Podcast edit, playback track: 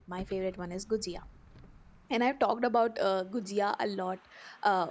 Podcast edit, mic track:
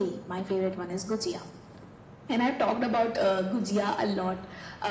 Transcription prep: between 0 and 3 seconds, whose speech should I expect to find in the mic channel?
echo only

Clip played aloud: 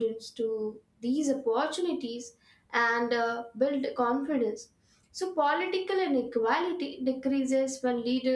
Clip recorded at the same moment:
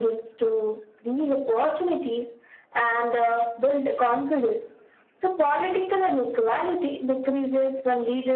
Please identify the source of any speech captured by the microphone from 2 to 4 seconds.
echo only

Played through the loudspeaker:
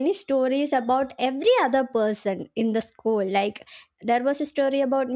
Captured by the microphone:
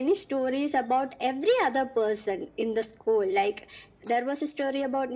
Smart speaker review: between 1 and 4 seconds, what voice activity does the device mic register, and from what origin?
echo only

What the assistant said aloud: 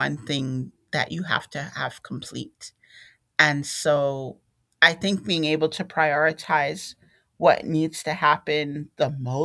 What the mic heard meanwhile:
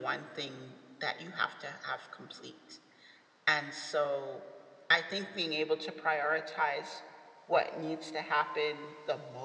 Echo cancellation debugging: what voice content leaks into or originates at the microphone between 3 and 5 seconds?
echo only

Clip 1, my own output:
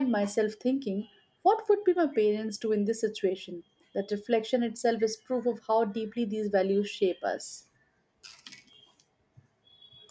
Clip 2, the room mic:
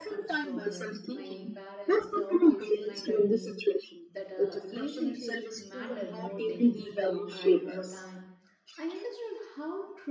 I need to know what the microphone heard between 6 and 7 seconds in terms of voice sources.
both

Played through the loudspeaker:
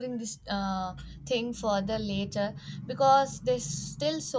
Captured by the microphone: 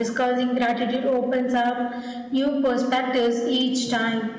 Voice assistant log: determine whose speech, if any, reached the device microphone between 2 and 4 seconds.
user only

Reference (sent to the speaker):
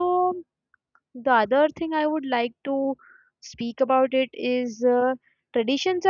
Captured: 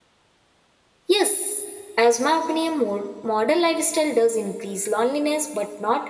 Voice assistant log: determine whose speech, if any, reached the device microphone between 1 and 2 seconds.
user only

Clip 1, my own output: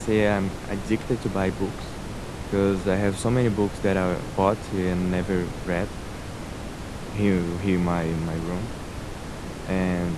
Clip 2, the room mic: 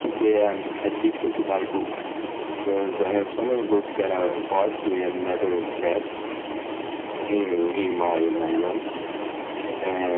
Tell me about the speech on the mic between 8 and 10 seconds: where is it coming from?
both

